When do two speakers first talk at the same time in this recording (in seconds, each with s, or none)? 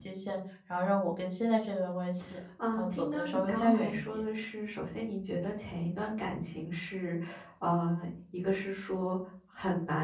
2.6 s